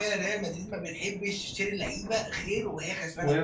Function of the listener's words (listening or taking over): listening